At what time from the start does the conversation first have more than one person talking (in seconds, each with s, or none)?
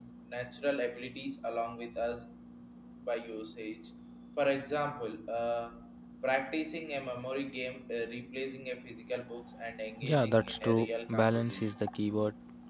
10.0 s